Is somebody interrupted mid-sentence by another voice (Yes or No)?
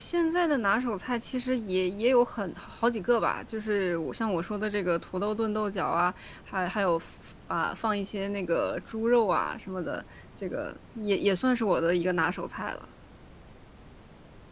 No